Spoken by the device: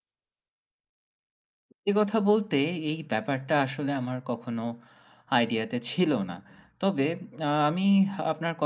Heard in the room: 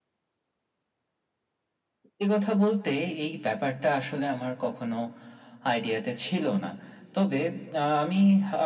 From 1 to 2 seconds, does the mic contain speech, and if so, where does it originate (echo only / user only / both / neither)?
neither